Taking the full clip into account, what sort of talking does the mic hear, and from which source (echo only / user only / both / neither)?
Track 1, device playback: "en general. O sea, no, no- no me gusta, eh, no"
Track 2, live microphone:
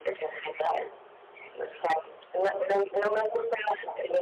echo only